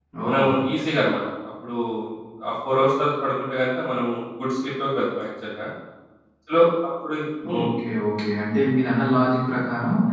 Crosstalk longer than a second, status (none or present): none